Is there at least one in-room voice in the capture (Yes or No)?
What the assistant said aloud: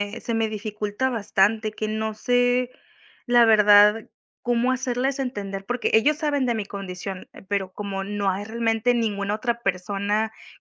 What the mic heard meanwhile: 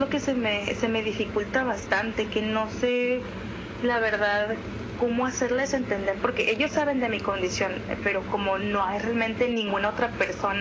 No